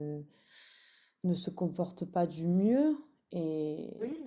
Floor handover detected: No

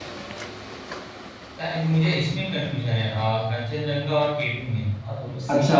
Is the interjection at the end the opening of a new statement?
Yes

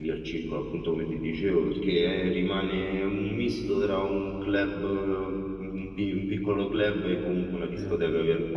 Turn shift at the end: Yes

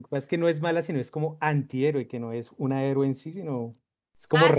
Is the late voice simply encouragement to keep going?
No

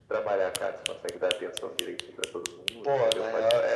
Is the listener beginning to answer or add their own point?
Yes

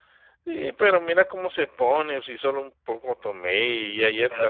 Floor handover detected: Yes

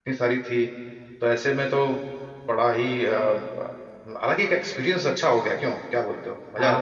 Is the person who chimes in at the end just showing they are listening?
No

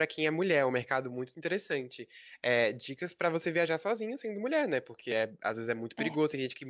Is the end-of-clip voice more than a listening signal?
No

